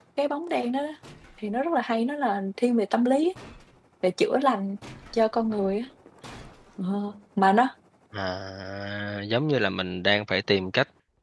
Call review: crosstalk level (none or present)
none